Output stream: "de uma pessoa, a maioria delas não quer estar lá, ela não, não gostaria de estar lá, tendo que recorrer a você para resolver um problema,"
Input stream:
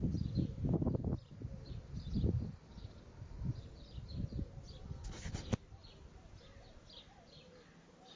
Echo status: none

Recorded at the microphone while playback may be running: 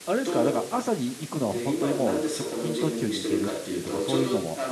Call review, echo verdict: present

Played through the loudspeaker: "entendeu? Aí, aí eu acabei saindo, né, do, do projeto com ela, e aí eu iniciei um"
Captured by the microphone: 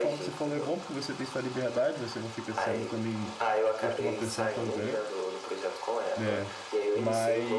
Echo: present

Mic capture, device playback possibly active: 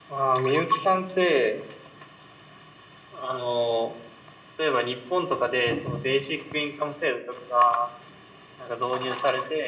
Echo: present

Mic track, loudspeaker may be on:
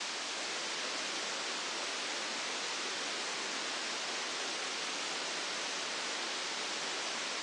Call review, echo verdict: none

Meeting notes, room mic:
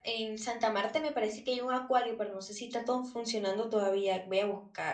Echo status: none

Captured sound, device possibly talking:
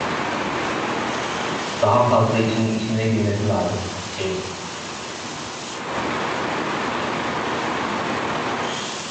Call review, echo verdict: none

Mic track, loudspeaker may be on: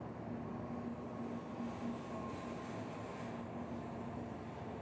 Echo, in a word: none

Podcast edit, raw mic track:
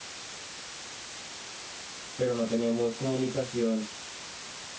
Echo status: none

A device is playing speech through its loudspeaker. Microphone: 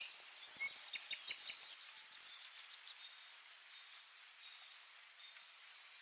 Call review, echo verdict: none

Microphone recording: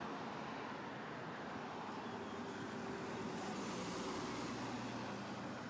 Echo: none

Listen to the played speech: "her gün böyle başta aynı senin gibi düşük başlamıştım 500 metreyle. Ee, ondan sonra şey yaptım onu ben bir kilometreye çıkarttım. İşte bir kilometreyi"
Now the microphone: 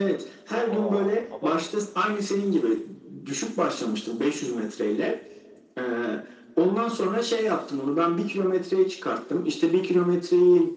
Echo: present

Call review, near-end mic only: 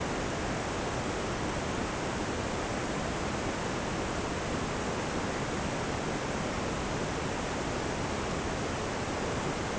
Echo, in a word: none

